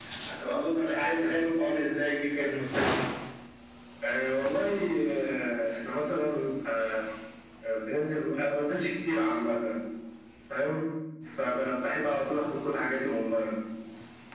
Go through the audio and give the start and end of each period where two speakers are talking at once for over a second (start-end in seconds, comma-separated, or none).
none